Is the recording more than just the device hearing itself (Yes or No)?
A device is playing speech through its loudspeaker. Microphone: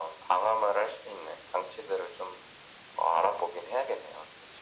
No